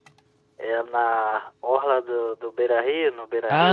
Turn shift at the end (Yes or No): Yes